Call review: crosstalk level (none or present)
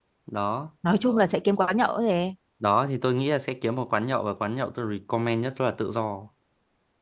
none